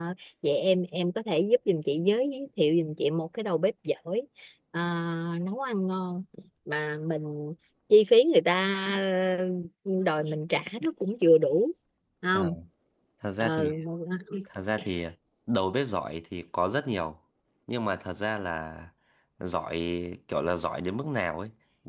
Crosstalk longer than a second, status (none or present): none